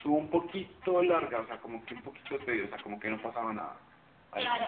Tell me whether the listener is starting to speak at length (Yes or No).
Yes